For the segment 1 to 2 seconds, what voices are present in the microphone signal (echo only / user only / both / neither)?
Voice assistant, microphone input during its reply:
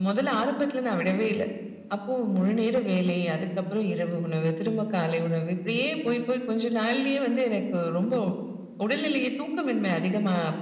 echo only